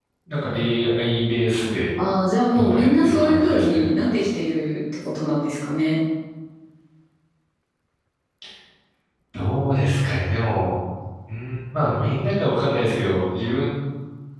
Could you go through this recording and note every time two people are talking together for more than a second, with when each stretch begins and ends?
2.5-3.9

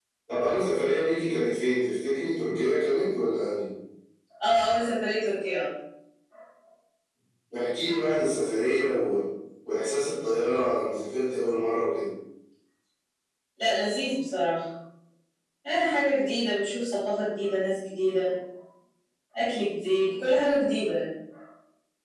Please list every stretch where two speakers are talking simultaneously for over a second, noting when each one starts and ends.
none

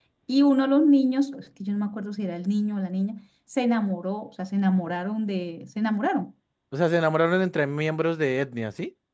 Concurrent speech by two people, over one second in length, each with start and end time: none

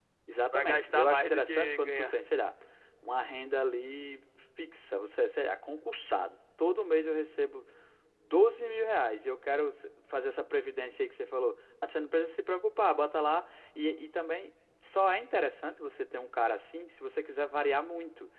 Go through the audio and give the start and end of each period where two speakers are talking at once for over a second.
0.5-2.2

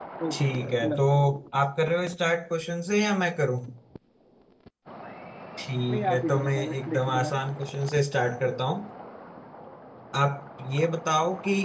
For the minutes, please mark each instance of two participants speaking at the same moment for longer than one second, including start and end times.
5.9-7.3

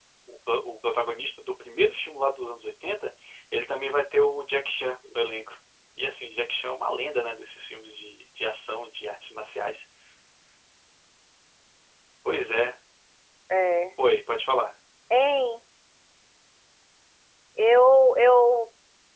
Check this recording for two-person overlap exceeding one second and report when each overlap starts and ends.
none

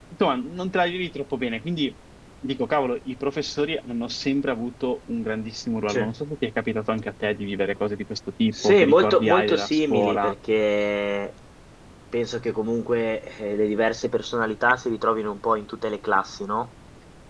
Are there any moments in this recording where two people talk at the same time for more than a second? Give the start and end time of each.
8.5-10.3

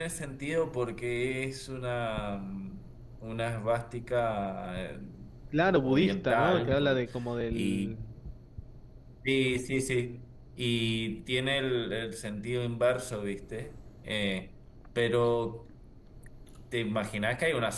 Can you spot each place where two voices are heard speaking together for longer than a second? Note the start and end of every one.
5.7-7.0

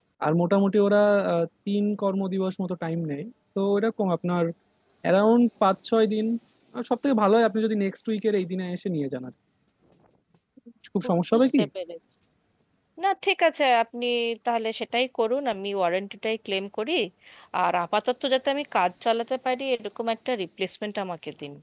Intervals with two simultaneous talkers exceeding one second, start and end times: none

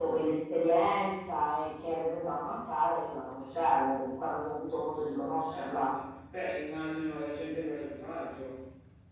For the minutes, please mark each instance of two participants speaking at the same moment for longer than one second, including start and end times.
none

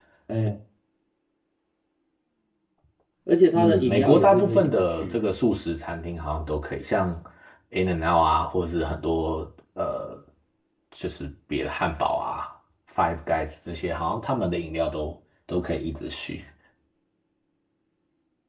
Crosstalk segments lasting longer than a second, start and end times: 3.5-5.2

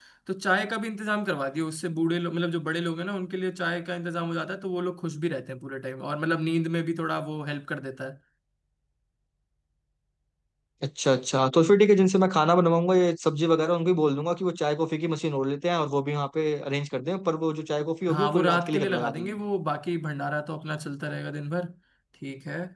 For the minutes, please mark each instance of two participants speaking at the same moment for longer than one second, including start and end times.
18.1-19.3

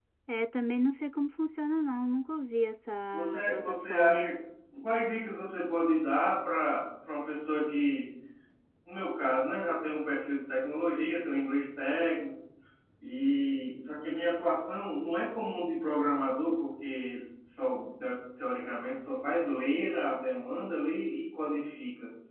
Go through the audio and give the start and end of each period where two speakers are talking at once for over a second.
3.1-4.3

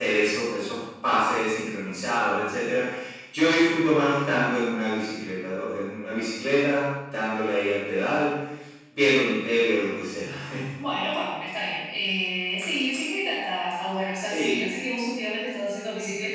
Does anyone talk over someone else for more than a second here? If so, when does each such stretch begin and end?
none

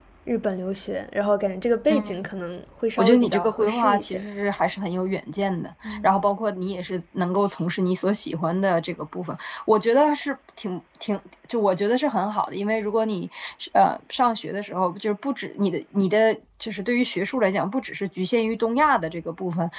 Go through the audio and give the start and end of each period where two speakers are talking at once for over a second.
3.0-4.2

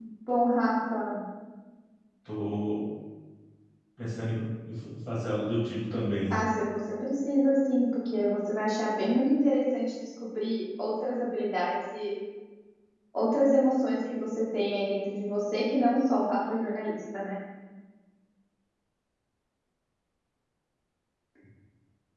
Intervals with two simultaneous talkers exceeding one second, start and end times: none

